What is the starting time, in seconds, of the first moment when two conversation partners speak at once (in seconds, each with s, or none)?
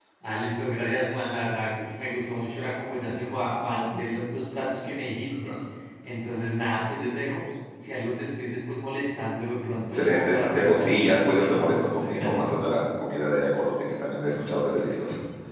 9.9 s